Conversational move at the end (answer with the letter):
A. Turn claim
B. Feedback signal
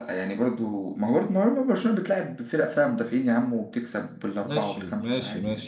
A